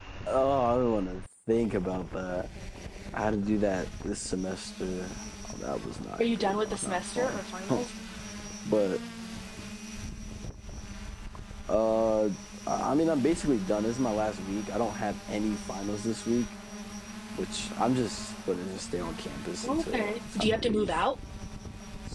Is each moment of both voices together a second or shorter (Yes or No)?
No